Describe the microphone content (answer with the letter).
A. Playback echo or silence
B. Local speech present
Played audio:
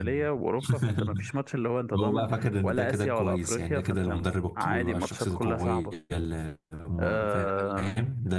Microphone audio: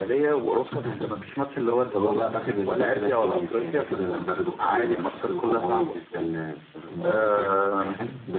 A